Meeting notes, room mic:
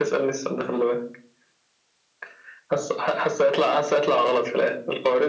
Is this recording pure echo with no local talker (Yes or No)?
Yes